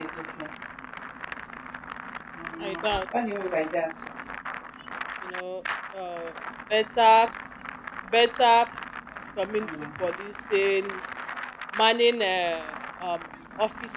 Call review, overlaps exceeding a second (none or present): none